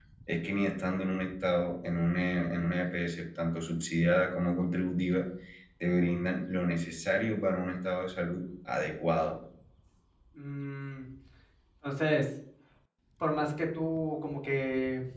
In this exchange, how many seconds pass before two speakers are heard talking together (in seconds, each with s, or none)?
none